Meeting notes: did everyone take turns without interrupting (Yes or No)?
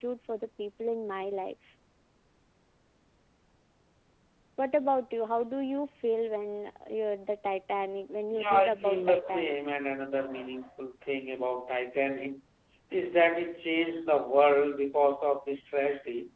No